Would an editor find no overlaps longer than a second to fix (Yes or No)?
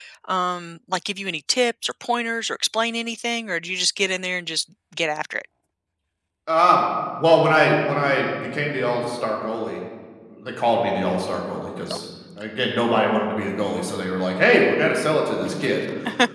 Yes